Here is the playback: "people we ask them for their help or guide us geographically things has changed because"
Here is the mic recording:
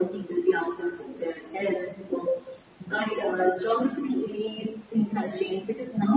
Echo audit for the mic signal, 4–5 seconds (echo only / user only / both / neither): echo only